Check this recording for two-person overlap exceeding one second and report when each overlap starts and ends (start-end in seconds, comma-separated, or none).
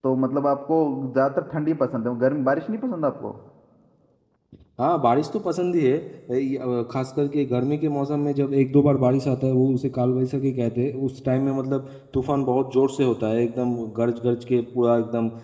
none